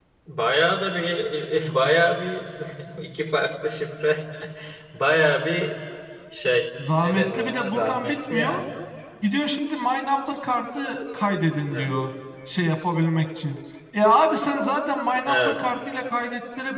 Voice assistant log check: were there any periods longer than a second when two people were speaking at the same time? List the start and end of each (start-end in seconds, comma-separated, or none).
7.0-8.6